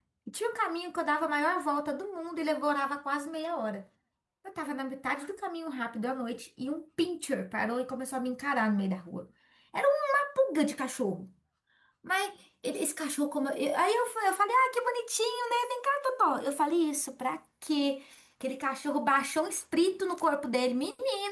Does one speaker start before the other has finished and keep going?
No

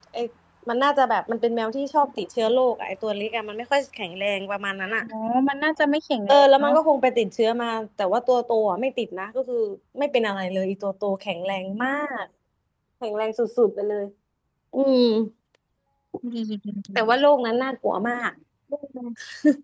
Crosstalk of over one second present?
No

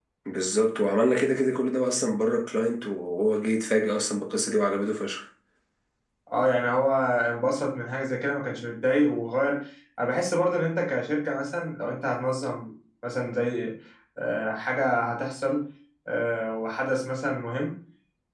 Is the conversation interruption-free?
Yes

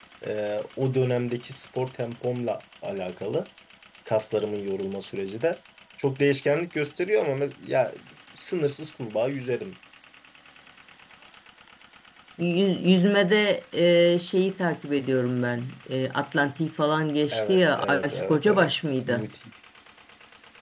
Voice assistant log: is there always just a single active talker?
No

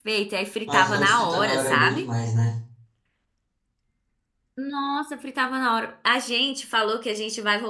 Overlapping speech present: Yes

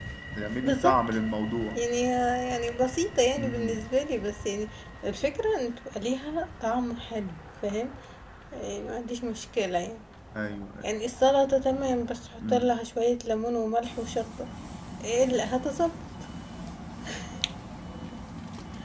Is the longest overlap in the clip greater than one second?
No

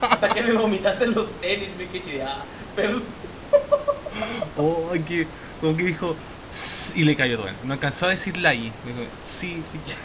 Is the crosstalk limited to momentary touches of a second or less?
Yes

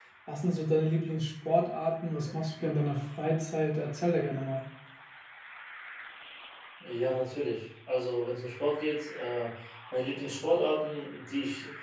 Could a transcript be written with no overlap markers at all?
Yes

